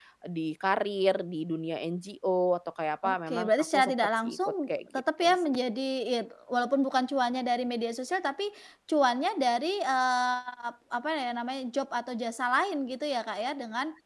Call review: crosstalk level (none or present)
present